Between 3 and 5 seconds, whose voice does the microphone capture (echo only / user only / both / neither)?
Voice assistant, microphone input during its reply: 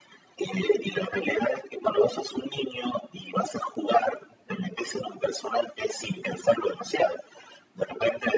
echo only